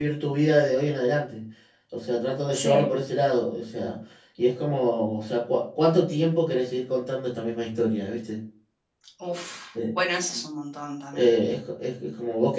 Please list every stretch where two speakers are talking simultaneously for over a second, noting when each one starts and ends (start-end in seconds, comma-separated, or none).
none